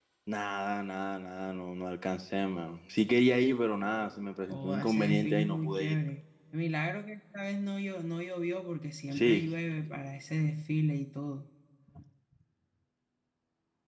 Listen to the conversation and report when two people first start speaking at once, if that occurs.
4.5 s

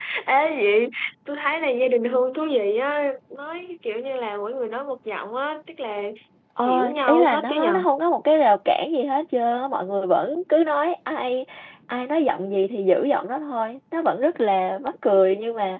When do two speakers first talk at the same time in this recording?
6.6 s

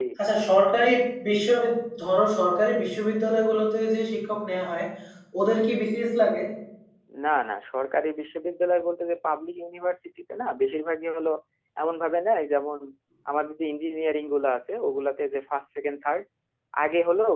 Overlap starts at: none

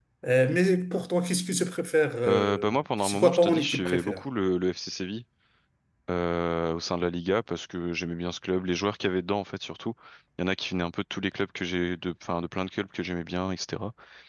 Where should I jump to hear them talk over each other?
2.3 s

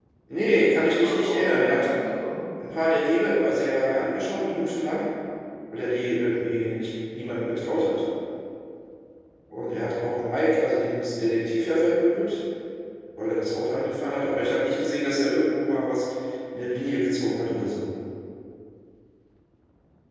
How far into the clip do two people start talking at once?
0.5 s

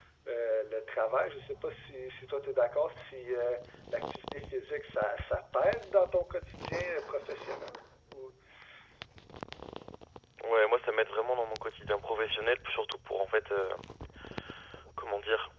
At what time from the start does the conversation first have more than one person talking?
none

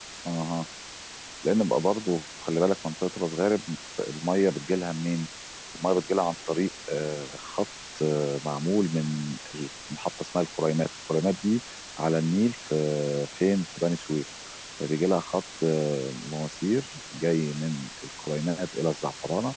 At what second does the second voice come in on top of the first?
none

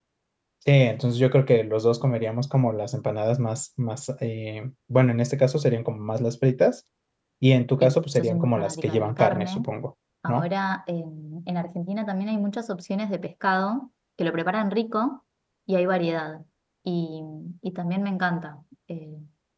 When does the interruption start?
7.8 s

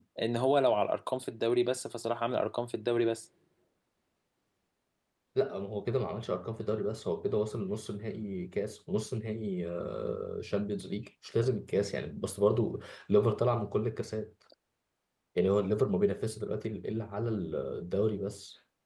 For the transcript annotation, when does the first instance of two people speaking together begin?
none

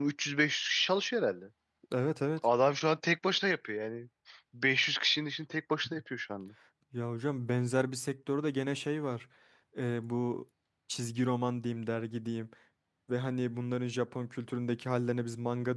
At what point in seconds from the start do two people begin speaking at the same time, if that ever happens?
none

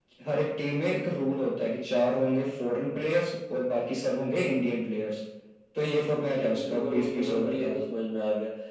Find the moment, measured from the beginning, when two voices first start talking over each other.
6.3 s

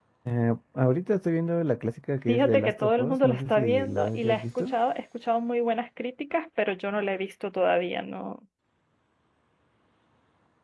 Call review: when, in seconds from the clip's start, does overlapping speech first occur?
2.3 s

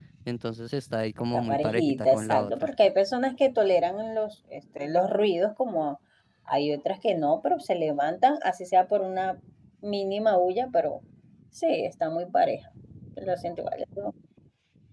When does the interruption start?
1.3 s

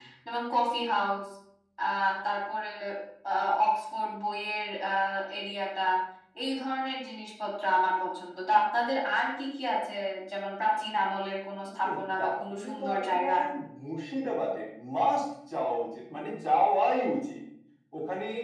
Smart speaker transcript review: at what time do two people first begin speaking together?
11.8 s

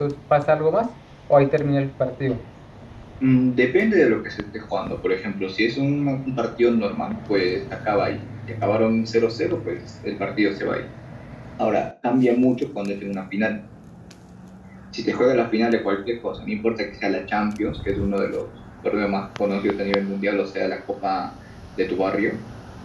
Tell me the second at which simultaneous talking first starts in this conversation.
none

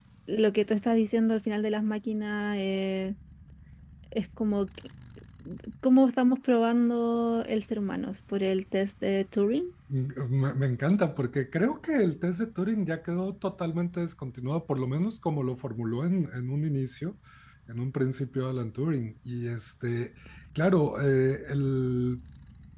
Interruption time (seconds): none

